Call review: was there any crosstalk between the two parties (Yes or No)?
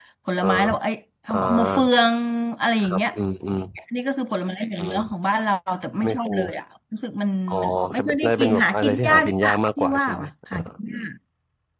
Yes